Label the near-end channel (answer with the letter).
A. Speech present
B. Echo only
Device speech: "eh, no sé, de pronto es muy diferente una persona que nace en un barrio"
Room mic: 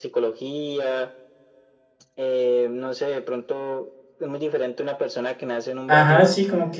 A